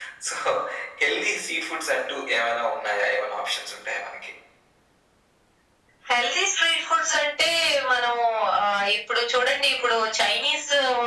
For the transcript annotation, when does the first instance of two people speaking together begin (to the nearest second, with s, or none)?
none